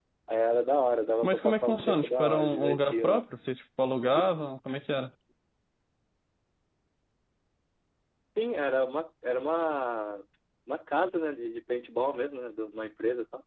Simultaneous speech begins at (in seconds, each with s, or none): 1.2 s